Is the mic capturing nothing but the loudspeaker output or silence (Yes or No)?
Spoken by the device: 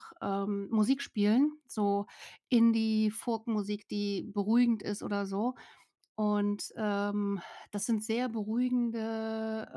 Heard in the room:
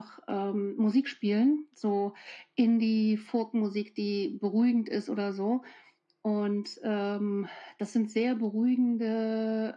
Yes